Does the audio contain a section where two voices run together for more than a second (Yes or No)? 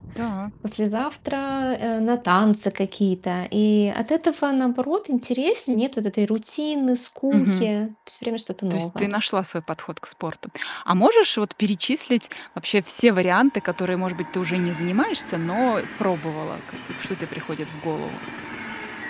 No